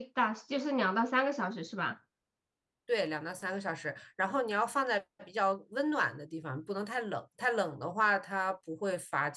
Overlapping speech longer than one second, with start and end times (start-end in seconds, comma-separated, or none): none